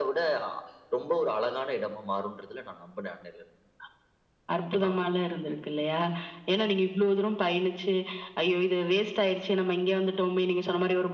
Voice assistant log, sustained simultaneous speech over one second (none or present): none